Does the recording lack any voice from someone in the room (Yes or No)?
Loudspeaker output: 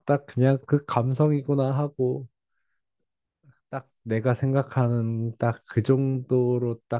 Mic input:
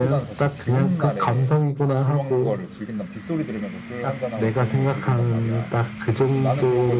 No